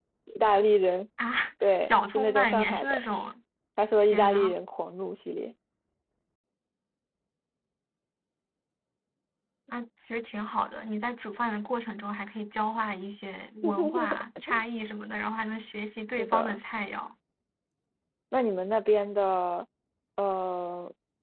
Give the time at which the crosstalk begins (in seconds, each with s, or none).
1.8 s